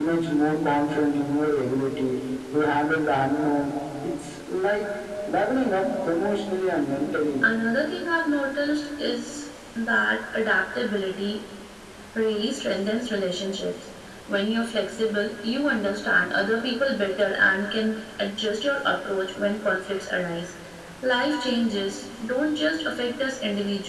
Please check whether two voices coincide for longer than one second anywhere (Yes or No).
No